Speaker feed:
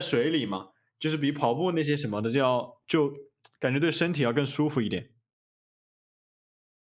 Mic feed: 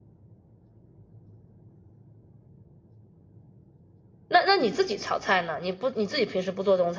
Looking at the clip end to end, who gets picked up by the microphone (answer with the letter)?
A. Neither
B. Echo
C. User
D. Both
C